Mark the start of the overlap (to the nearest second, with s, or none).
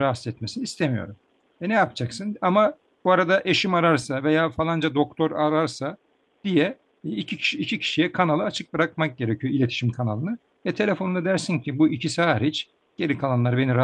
none